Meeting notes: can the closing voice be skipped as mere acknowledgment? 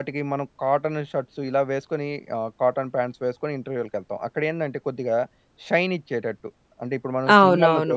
No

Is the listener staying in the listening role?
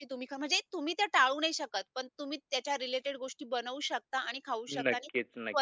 Yes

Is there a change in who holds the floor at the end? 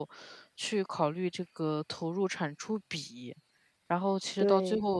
No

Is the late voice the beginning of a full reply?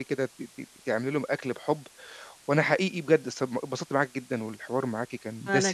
No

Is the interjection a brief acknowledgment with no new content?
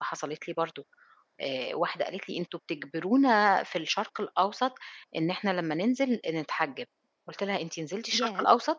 Yes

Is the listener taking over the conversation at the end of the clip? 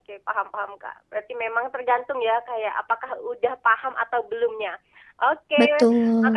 No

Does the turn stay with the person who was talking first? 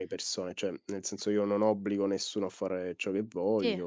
Yes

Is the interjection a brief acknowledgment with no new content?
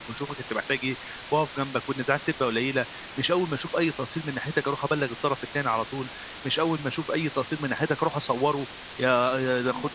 Yes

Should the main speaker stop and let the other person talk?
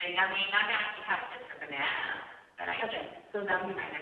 Yes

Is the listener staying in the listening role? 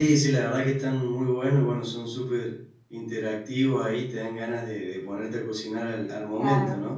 No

